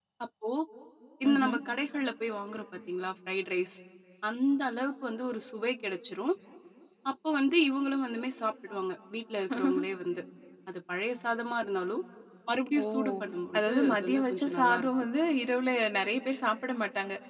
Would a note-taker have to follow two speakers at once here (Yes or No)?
Yes